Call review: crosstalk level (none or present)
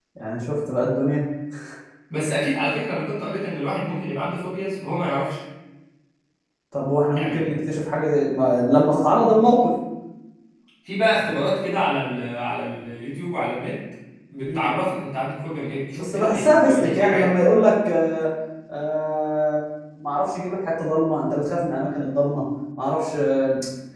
present